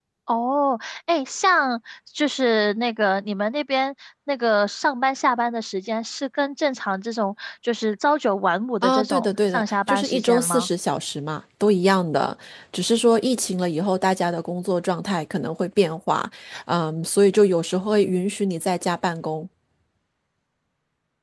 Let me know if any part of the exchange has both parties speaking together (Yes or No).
Yes